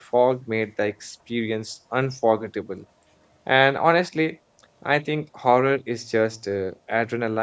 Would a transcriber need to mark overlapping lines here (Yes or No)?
No